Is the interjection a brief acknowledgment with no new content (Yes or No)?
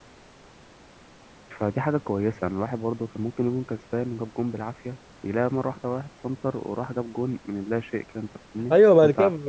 No